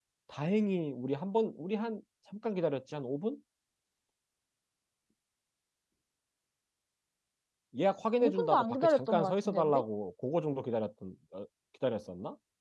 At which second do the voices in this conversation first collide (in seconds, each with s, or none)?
8.2 s